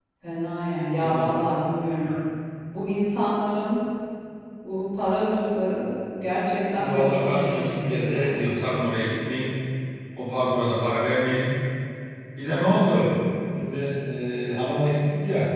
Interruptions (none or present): present